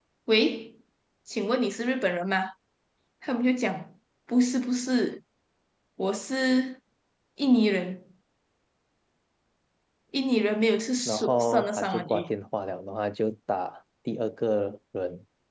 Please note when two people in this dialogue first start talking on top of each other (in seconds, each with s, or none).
11.1 s